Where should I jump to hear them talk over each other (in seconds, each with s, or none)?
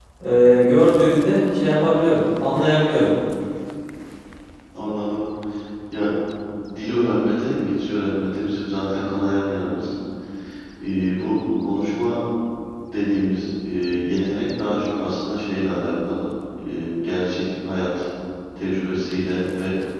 none